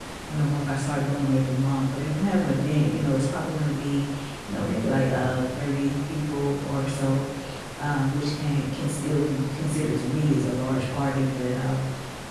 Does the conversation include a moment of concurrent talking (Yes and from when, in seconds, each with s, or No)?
No